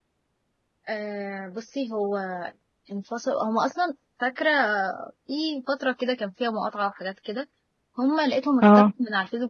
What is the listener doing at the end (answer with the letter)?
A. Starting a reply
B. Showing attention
B